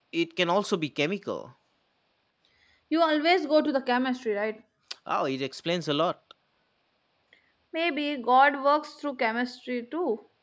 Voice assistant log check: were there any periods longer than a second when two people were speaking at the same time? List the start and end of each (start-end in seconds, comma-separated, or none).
none